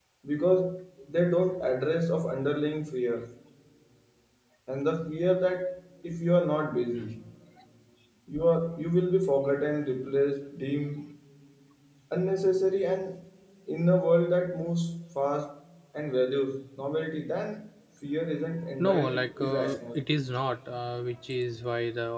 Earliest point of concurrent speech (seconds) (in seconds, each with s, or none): 18.8 s